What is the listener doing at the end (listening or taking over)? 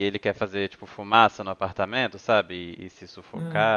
listening